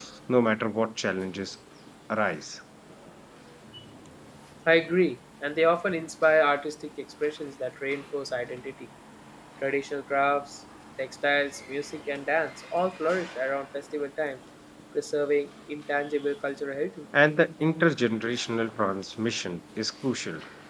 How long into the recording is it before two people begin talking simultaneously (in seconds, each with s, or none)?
none